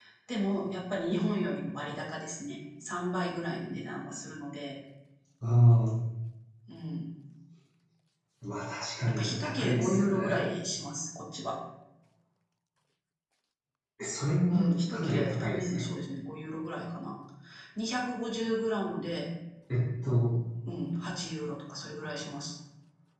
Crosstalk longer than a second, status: present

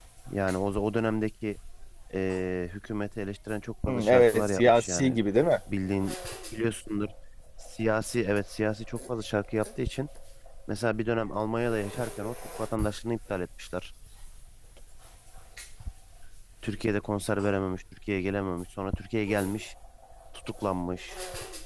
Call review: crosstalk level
present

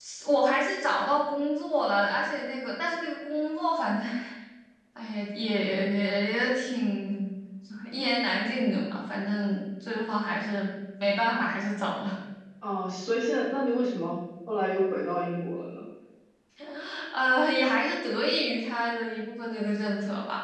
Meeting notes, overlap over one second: none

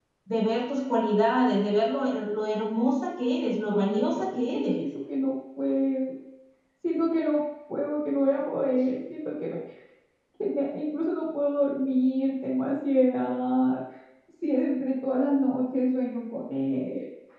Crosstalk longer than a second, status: present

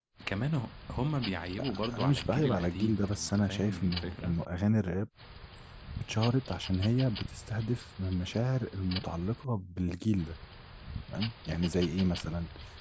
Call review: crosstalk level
present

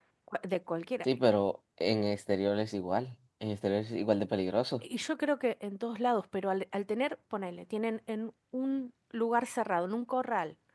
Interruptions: none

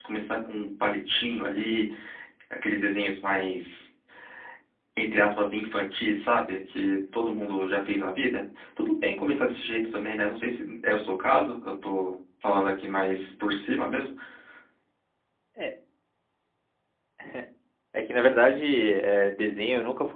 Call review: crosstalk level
none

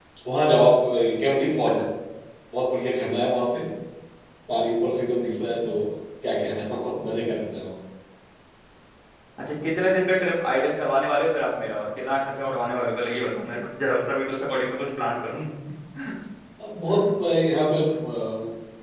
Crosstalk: none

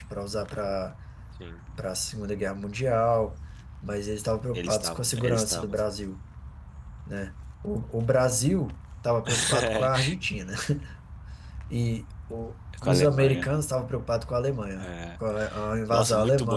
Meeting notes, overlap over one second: present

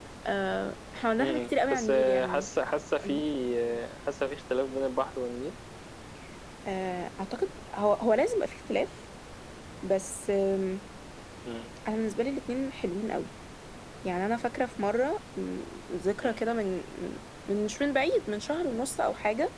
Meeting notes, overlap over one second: present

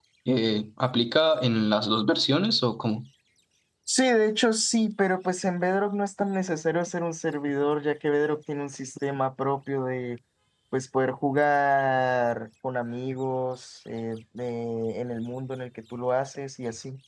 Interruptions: none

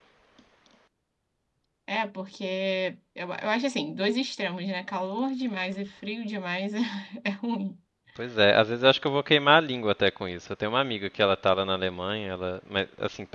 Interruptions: none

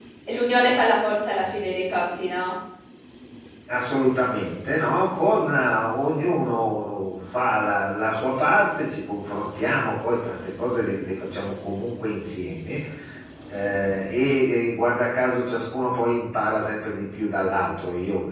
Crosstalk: none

